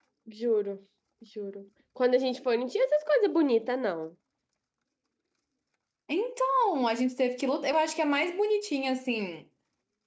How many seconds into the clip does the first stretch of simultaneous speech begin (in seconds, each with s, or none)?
none